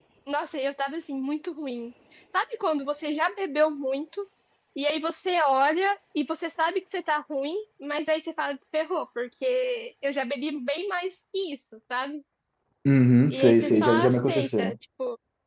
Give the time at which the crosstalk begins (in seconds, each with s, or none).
13.3 s